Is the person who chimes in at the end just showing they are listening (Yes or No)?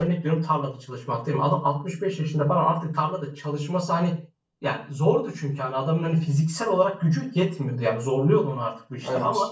Yes